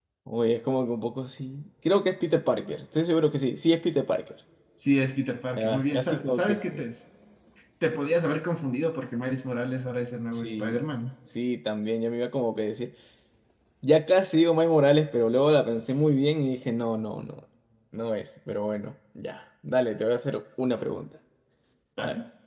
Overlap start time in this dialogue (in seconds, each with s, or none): 5.6 s